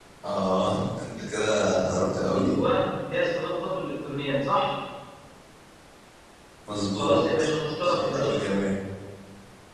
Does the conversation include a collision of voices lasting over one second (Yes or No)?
Yes